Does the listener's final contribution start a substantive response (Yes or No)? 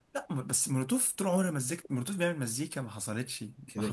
Yes